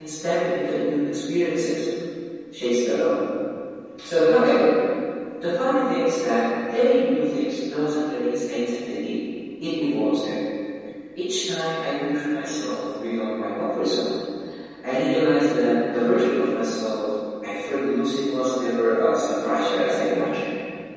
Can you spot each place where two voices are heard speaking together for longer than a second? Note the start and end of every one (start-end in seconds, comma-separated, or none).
none